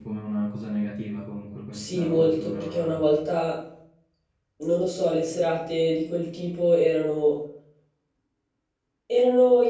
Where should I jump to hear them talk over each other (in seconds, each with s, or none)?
1.7 s